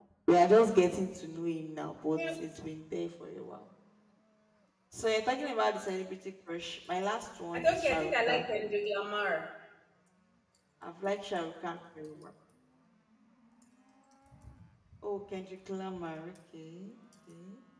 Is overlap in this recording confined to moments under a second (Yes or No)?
No